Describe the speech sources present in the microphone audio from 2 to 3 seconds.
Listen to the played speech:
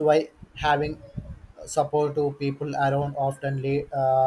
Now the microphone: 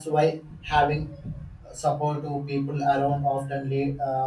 echo only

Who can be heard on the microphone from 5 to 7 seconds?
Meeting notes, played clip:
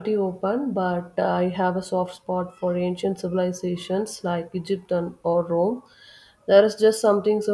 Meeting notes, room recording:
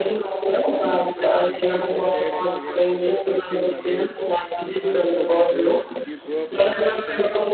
both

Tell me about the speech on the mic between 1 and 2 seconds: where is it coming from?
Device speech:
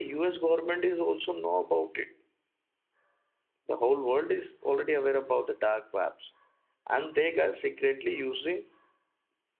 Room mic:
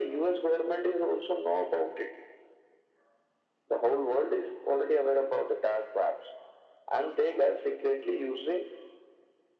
echo only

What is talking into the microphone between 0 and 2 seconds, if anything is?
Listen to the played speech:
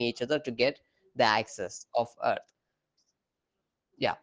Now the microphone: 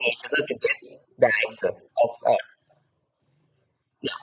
echo only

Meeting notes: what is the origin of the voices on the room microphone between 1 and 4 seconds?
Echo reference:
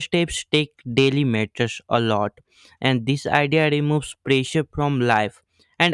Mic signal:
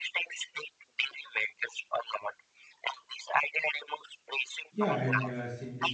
echo only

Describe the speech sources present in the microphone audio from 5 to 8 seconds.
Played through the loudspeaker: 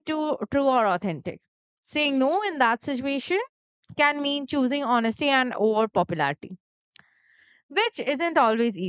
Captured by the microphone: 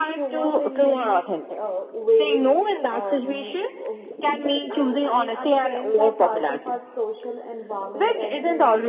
both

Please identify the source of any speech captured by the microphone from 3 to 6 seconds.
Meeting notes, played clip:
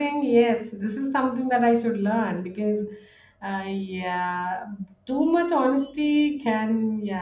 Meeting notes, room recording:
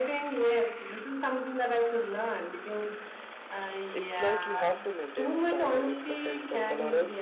both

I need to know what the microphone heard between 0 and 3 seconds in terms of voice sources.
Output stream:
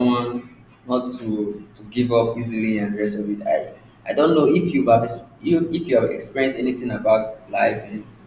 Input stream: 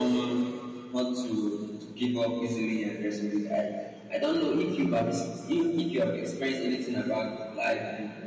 echo only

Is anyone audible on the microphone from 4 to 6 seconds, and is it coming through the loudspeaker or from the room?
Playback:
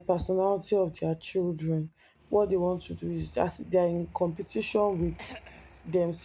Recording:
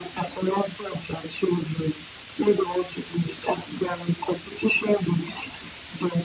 echo only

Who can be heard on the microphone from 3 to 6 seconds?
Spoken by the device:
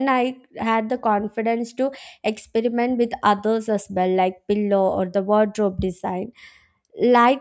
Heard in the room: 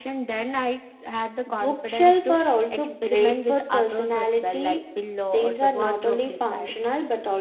both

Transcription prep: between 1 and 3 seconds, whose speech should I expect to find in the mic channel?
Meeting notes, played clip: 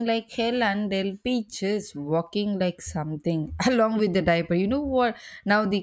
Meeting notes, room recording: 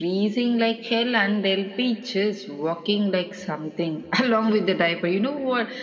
echo only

